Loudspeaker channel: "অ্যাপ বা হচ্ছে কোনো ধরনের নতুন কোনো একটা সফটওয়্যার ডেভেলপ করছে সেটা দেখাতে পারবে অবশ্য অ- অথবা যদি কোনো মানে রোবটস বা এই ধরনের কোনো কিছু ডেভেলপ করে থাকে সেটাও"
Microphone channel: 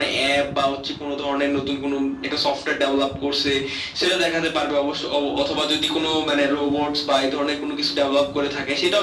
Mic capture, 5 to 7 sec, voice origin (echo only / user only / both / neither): echo only